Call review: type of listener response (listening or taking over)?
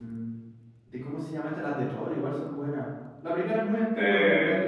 taking over